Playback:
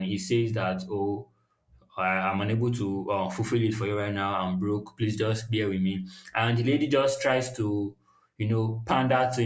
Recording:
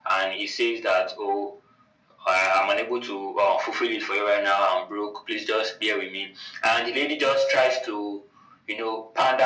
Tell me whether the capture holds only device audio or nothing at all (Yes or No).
Yes